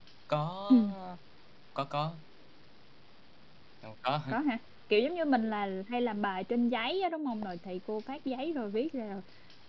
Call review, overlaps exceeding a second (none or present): none